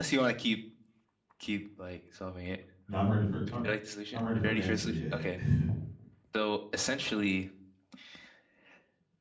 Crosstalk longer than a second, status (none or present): present